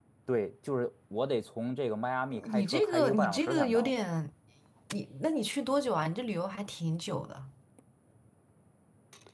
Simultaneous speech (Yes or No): Yes